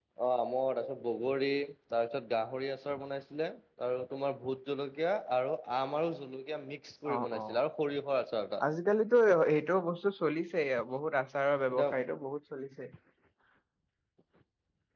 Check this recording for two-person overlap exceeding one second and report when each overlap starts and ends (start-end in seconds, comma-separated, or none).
none